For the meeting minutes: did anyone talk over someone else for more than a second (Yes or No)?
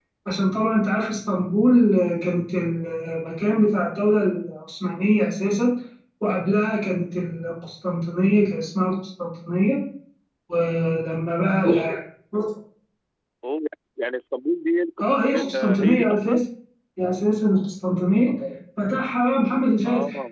Yes